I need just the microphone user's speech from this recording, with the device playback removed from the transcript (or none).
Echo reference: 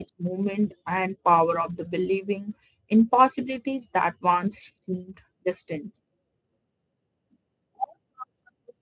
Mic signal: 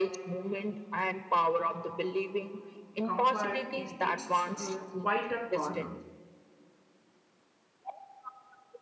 comfort in its uh, quieter corner,